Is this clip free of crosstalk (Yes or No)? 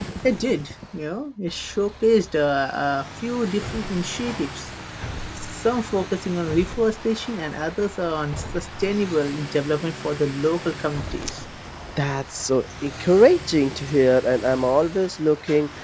Yes